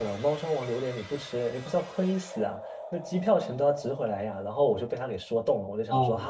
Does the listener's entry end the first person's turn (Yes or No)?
No